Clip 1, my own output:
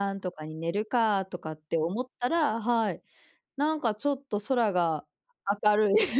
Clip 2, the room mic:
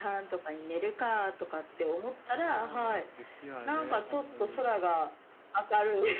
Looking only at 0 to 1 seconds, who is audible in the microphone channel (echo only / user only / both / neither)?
echo only